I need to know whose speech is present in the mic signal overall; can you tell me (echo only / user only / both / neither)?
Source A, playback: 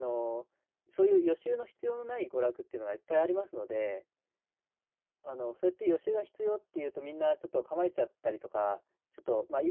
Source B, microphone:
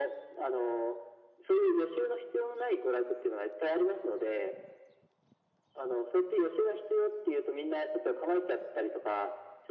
echo only